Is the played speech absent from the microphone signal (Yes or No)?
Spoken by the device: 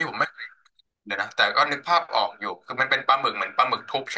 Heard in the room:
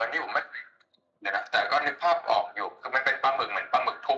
No